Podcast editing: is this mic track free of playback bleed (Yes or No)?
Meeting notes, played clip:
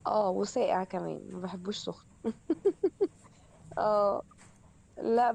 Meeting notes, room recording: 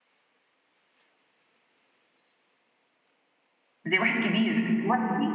Yes